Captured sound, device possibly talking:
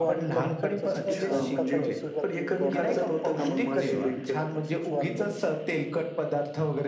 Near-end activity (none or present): present